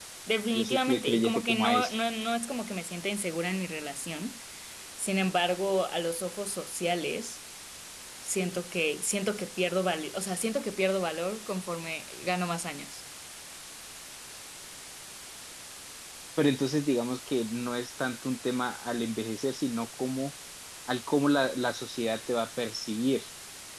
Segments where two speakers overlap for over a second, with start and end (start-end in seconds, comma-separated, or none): 0.5-1.9